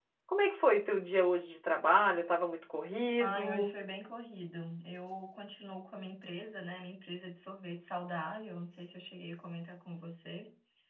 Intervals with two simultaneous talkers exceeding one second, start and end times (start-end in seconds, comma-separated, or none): none